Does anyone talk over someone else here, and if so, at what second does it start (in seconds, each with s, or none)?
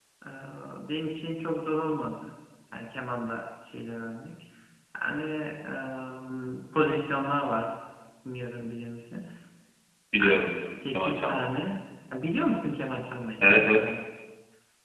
10.2 s